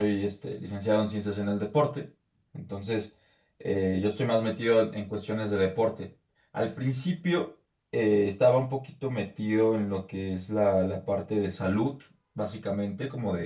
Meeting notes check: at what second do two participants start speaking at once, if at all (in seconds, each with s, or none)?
none